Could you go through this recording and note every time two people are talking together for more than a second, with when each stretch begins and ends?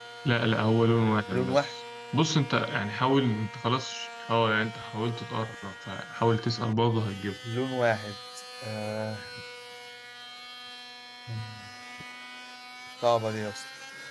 none

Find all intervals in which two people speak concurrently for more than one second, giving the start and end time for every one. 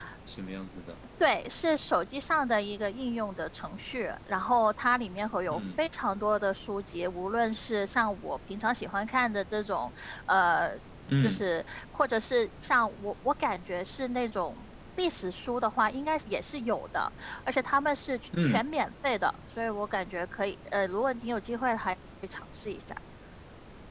none

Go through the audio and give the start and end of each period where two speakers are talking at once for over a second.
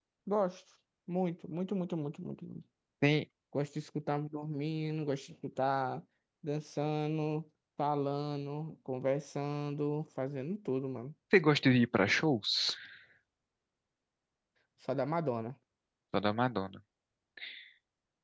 none

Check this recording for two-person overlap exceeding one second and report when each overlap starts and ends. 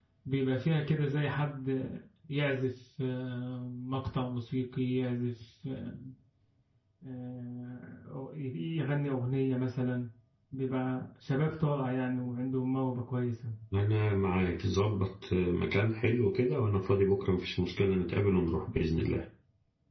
none

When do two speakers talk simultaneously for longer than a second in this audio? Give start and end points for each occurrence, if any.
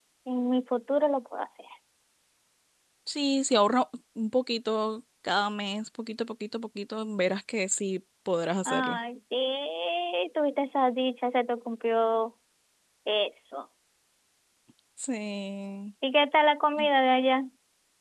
none

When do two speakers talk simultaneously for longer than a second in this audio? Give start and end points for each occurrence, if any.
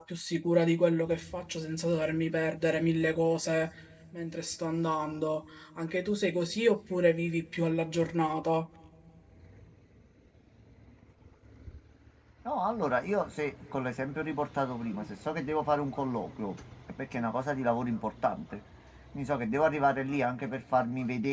none

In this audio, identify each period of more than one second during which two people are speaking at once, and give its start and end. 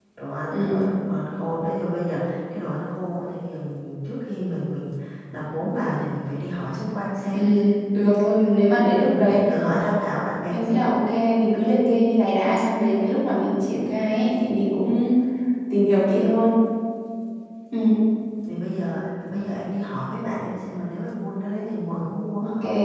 none

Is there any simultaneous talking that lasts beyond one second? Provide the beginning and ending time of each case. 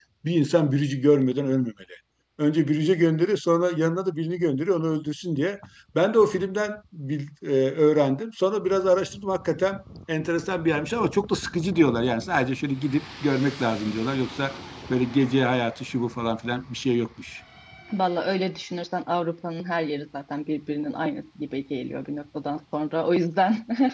none

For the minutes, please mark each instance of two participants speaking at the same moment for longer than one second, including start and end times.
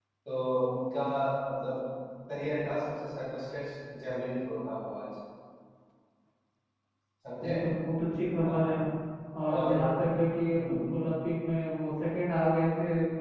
none

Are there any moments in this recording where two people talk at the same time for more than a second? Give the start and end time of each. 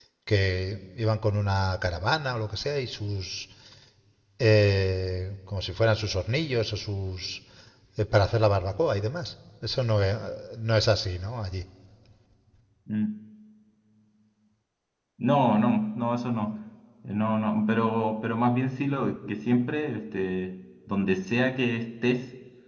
none

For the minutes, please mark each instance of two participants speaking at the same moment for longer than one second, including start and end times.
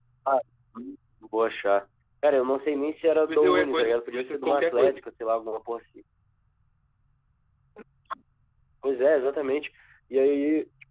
3.3-5.0

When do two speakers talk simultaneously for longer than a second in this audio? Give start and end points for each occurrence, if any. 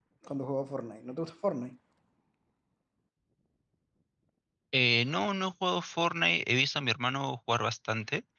none

